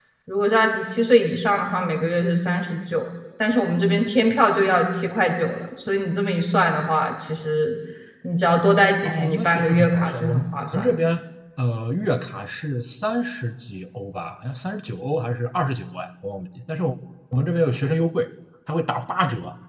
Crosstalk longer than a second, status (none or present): present